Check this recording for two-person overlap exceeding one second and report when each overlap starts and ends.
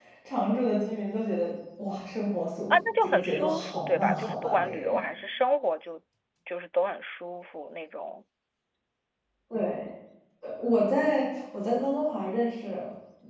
2.7-5.0

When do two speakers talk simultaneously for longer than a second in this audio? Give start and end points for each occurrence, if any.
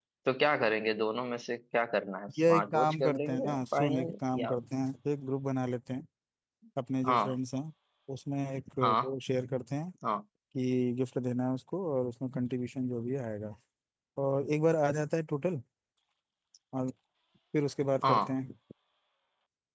2.4-4.5

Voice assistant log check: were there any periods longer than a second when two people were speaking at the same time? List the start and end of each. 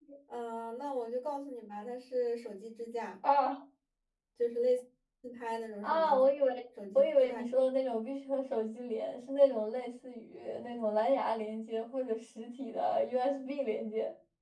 none

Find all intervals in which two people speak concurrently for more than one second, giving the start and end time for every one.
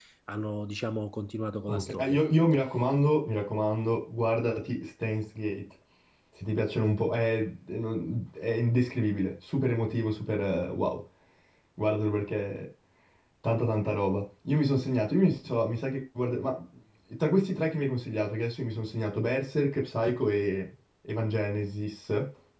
none

